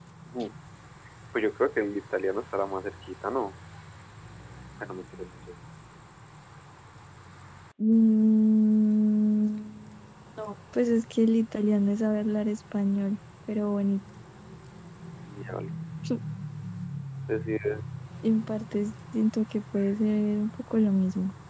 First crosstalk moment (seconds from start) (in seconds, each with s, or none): none